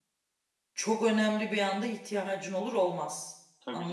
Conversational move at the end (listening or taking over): taking over